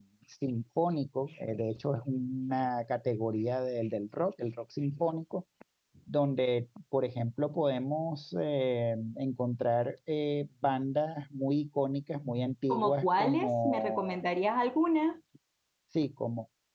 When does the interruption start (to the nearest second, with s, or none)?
13 s